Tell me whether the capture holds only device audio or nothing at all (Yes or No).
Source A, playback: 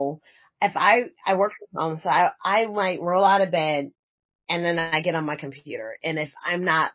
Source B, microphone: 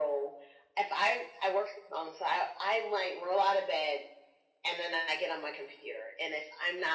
Yes